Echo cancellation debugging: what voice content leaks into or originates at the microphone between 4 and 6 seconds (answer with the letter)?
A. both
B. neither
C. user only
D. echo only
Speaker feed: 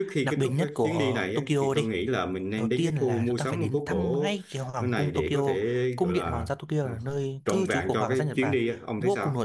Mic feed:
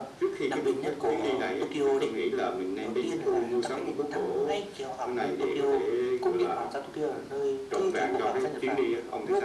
D